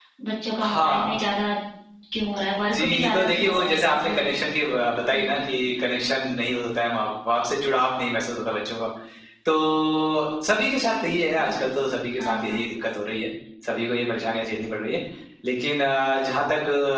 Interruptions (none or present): present